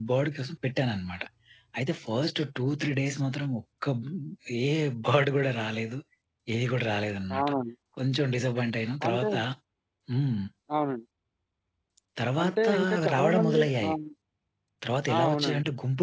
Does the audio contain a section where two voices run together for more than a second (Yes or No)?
Yes